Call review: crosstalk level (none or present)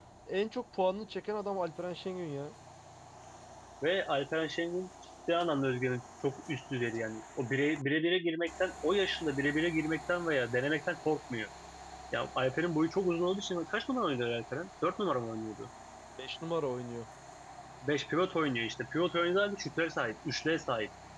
none